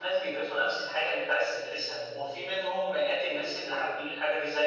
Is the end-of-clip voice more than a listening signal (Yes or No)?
No